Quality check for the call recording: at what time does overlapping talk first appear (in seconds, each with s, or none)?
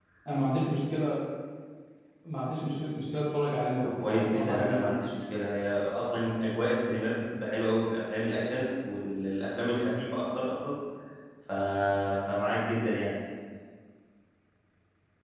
3.8 s